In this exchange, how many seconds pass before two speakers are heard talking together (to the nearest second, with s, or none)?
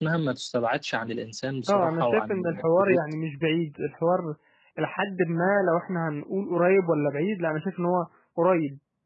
2 s